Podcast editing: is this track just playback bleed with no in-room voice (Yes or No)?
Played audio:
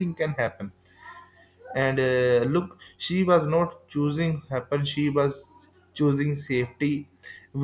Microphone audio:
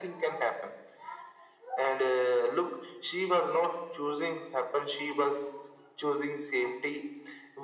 Yes